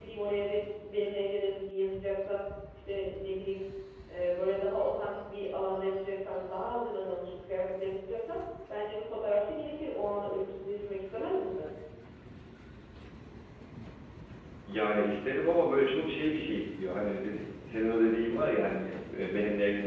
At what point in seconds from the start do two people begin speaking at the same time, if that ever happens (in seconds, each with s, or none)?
none